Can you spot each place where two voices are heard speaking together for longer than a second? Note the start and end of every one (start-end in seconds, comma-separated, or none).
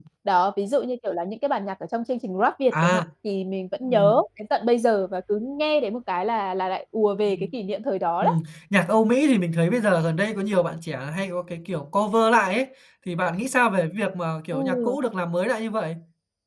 none